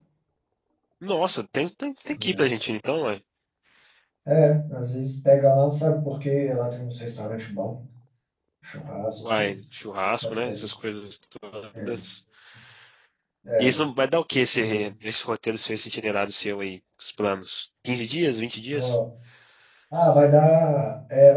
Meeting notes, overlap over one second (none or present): none